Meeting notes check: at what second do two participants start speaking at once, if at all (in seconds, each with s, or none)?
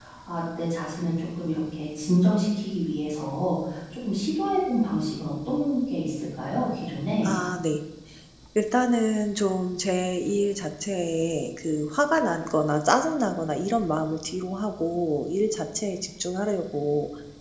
none